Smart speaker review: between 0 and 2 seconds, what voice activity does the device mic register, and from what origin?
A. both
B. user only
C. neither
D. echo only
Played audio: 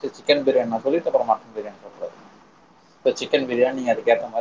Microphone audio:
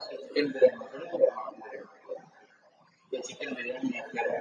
D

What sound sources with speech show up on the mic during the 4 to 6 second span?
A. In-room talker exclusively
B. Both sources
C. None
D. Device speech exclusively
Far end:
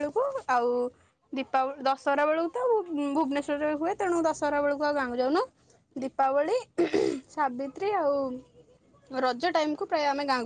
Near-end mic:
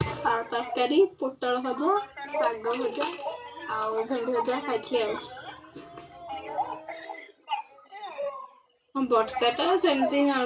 B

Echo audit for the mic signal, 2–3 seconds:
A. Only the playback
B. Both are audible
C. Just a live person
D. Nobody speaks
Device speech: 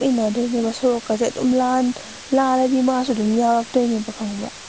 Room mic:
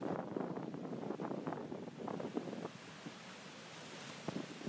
D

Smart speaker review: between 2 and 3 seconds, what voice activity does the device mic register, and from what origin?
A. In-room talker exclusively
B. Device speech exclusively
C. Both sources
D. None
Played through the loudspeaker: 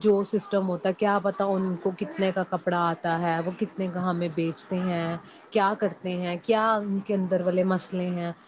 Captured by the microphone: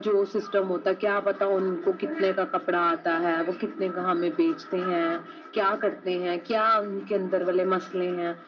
B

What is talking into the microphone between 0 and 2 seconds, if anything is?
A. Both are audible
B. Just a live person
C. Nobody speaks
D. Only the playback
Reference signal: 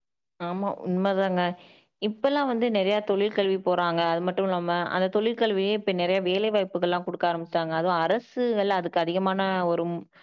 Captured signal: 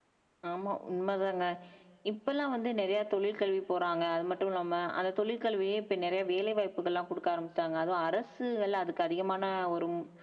D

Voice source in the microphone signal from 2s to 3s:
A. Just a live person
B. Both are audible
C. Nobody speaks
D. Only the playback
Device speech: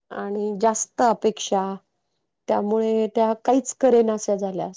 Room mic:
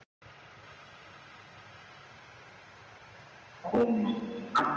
C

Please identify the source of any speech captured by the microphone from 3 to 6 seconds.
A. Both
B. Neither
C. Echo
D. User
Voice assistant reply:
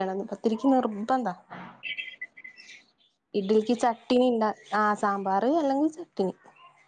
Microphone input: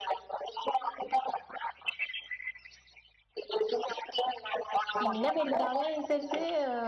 A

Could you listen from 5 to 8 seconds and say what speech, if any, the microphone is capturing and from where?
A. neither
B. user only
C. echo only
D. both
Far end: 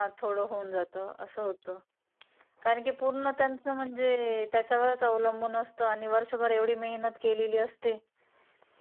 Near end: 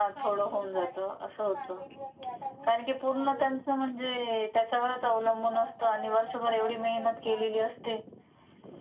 D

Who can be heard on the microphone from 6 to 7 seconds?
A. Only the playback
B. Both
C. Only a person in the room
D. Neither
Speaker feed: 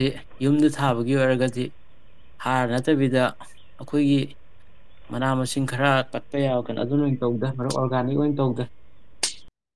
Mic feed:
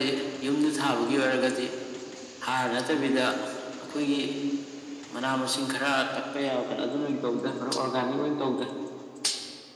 A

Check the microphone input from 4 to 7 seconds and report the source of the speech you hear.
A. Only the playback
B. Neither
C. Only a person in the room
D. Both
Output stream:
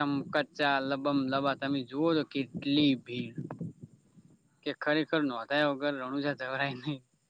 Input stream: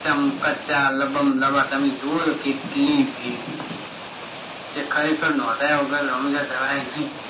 A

